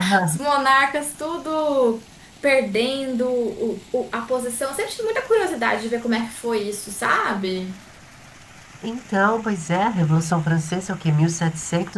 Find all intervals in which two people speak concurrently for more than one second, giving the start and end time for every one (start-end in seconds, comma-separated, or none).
none